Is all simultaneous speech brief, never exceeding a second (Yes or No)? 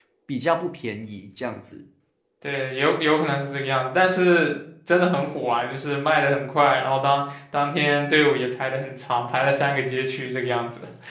Yes